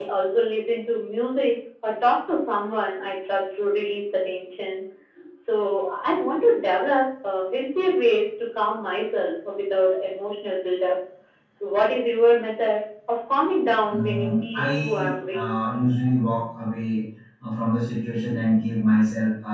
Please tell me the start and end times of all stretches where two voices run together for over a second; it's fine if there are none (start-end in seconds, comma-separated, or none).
13.9-15.5